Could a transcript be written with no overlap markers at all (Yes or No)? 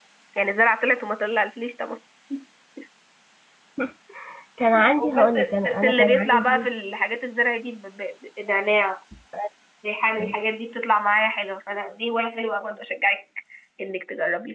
No